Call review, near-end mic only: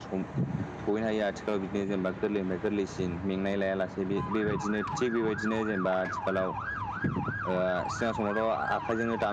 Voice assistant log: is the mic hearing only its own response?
Yes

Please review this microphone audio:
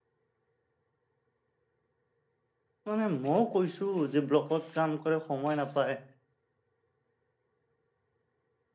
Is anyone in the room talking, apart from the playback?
Yes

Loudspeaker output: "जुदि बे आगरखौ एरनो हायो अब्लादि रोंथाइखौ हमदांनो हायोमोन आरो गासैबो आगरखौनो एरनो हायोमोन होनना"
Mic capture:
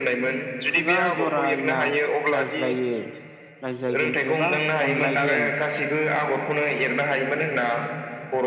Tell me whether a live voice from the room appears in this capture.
Yes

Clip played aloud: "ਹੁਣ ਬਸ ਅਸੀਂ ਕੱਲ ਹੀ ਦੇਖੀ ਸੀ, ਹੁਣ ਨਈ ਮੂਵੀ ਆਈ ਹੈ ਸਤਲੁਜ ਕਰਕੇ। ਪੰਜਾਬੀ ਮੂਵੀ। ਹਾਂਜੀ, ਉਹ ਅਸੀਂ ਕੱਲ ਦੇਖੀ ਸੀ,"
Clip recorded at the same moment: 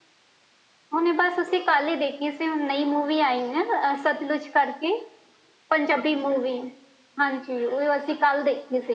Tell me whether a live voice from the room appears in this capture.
No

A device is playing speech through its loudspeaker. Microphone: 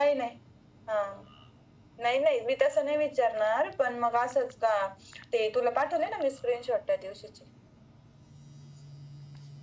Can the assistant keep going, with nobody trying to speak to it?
Yes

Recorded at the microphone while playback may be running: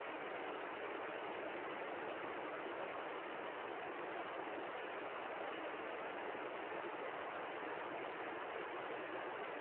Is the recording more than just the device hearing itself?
No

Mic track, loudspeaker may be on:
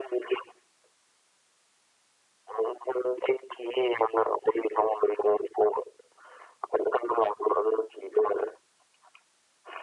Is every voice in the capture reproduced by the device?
Yes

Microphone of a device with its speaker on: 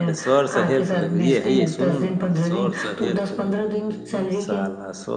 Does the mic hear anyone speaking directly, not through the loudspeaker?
Yes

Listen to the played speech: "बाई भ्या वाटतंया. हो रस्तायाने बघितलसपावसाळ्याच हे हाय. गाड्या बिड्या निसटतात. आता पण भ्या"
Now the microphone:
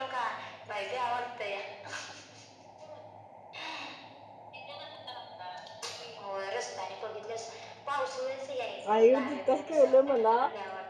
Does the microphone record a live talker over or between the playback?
Yes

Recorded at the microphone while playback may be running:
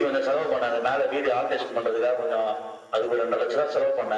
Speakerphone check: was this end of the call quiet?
Yes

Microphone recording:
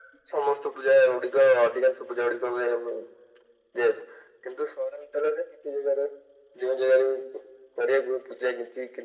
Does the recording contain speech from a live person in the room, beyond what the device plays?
No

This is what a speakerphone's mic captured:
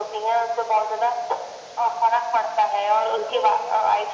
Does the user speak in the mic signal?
Yes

